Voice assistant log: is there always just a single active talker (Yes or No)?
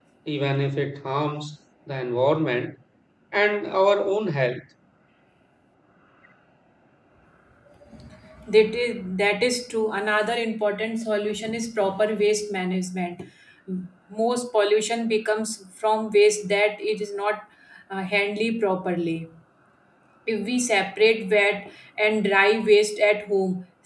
Yes